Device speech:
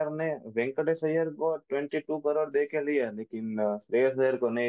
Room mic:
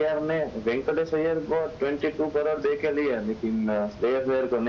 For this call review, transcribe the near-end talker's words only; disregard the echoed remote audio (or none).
none